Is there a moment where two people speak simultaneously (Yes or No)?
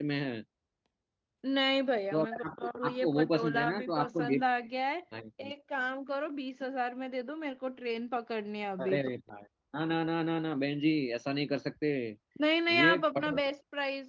Yes